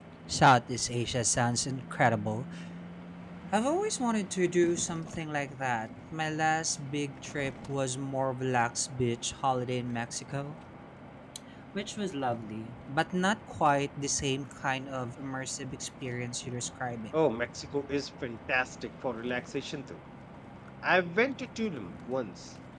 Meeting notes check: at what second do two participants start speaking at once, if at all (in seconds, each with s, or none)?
none